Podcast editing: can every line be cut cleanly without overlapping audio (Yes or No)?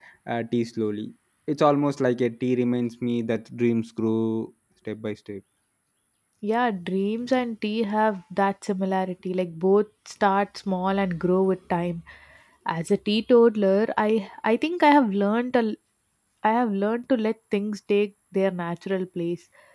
Yes